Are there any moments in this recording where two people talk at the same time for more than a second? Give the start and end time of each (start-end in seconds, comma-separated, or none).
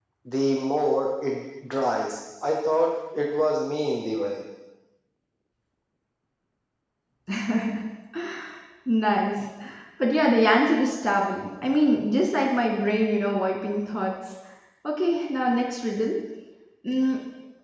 none